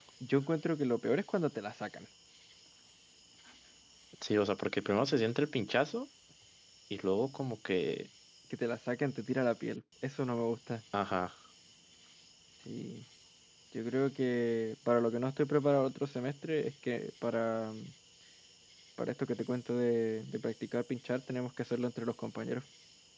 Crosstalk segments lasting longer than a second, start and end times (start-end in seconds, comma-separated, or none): none